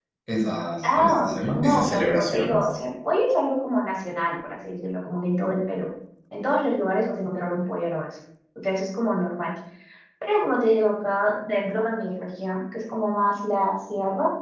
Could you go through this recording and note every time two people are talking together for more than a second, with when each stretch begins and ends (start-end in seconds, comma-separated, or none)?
0.8-2.7